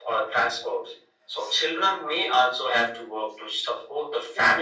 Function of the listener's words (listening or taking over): listening